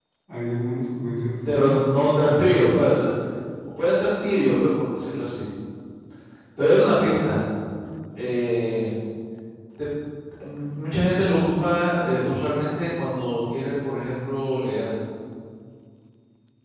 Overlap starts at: 1.4 s

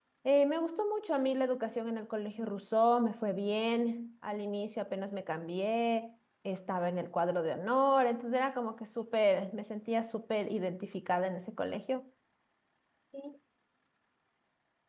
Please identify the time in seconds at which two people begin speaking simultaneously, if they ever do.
none

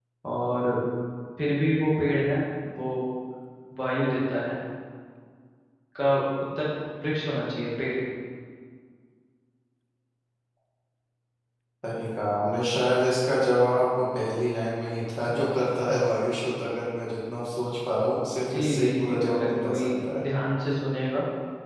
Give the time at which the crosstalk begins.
18.4 s

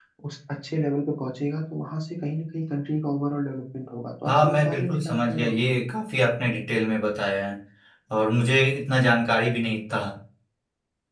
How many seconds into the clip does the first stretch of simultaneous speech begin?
4.3 s

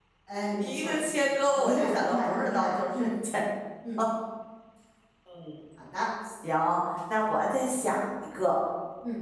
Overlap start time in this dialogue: 0.6 s

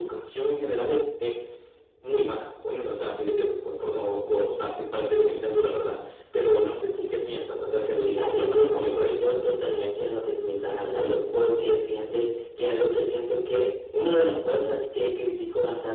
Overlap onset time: 8.1 s

